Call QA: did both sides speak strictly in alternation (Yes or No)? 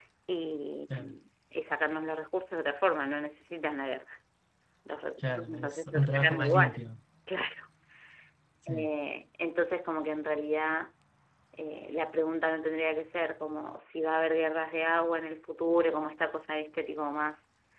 No